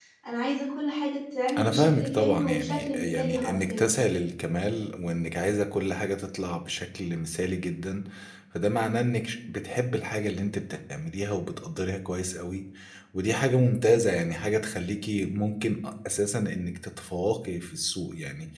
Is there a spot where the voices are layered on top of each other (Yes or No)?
Yes